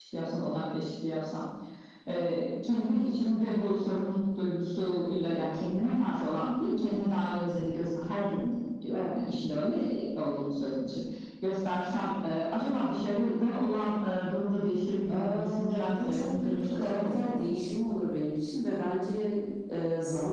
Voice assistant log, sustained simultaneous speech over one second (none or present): present